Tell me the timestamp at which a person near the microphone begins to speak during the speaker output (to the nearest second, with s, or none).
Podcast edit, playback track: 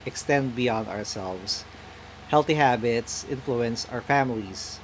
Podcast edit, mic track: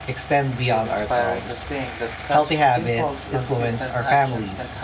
1 s